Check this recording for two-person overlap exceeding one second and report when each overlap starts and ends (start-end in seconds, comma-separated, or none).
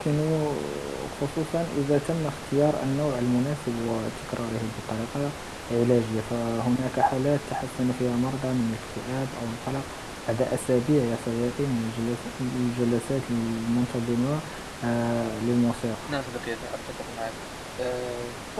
none